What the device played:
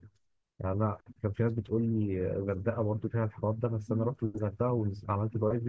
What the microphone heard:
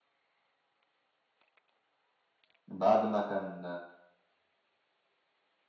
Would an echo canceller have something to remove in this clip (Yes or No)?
No